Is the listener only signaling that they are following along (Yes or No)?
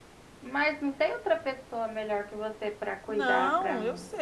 No